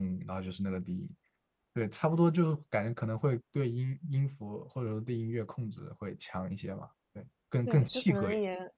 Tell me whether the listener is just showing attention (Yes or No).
No